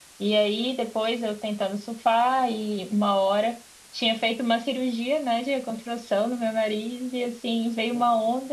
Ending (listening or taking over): listening